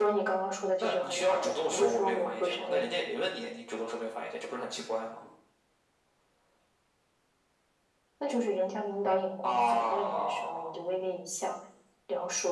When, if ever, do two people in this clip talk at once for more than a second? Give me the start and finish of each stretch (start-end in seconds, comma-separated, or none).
0.8-2.8, 9.4-10.7